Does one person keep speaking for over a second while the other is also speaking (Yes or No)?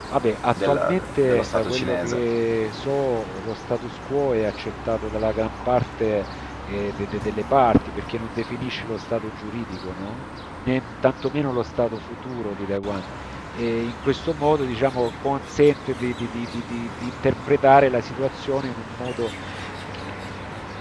Yes